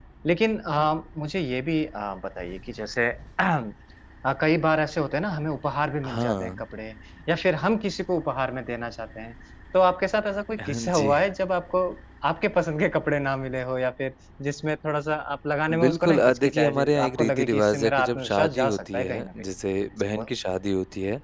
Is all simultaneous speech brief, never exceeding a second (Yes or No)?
No